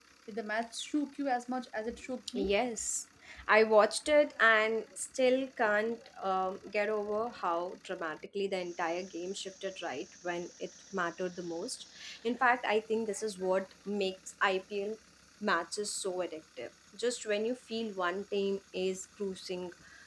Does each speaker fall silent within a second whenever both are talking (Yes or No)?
Yes